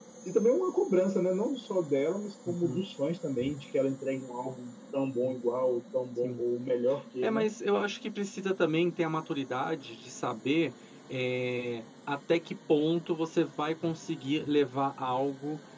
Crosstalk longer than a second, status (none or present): none